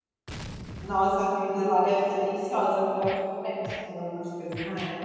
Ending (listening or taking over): taking over